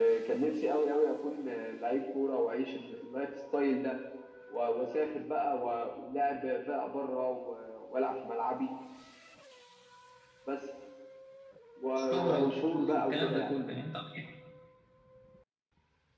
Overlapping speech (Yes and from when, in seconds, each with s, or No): Yes, from 11.9 s